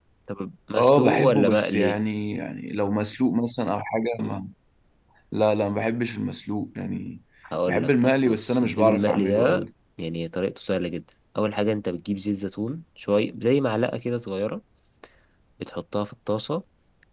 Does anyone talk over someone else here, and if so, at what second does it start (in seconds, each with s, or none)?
0.8 s